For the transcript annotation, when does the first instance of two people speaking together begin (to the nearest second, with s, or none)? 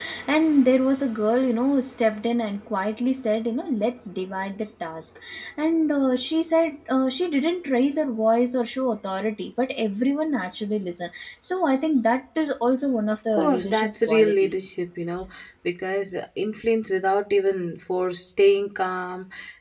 13 s